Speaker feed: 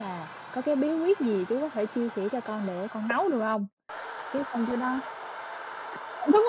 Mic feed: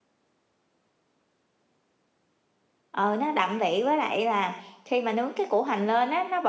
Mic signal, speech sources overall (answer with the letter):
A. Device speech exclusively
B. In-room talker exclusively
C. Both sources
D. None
B